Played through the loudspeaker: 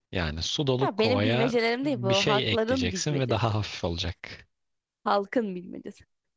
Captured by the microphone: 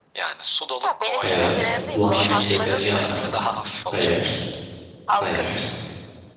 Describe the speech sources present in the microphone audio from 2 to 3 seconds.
both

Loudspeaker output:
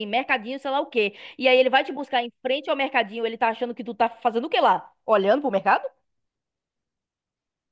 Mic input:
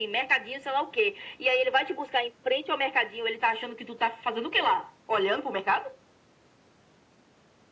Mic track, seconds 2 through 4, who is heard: echo only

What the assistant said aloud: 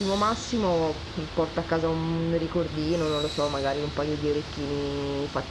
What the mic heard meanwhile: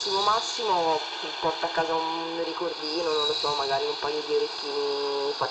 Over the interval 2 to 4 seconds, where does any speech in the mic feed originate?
echo only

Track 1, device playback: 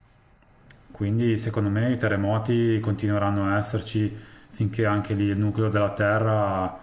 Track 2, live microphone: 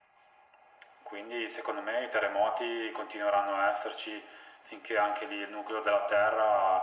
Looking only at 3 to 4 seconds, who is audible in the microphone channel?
echo only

